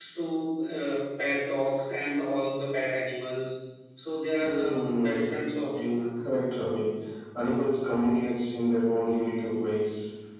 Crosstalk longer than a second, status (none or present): present